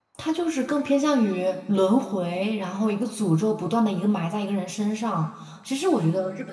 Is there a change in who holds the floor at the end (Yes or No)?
No